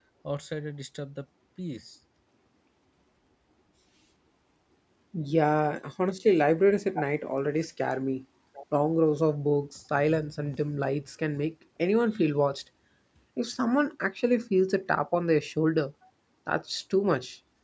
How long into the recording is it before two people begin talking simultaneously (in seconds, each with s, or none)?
none